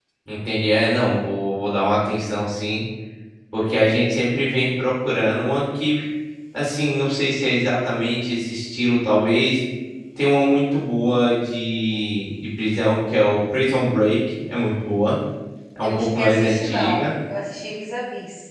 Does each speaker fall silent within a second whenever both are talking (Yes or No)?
No